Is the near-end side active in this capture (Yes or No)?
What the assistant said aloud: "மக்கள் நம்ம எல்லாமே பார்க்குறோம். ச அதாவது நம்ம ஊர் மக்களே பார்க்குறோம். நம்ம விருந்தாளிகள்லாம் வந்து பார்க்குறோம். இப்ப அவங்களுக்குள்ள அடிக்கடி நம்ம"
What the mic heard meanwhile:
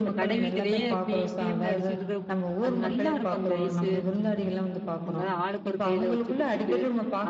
Yes